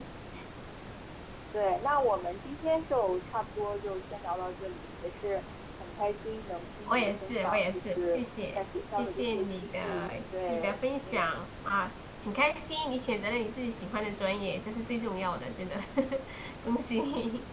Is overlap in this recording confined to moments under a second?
No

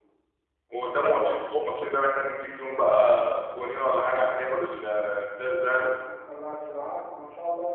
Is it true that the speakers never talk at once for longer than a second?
Yes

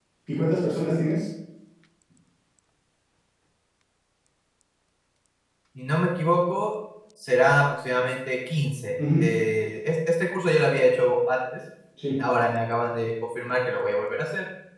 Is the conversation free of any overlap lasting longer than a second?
Yes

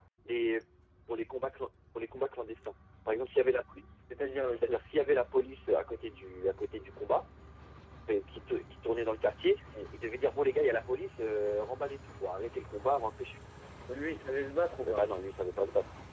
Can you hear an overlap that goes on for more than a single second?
No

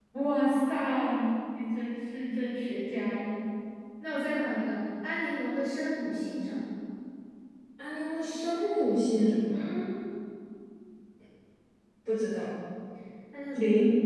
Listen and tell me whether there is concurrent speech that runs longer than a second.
No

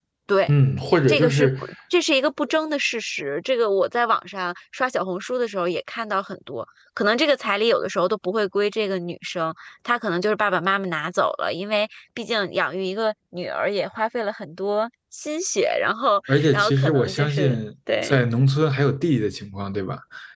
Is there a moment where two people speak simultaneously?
Yes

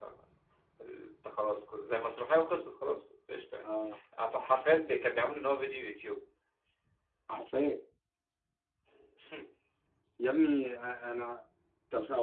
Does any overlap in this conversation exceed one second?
No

